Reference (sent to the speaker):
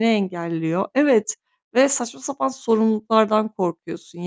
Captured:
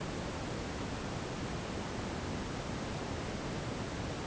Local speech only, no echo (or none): none